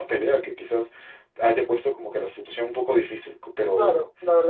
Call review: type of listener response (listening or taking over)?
taking over